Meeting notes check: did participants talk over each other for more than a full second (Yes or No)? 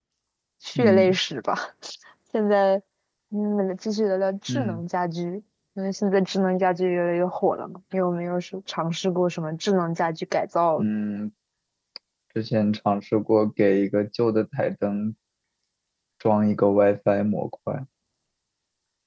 No